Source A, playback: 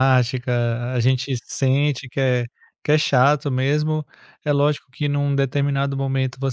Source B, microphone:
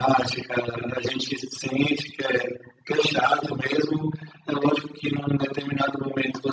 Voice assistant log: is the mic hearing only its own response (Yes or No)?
Yes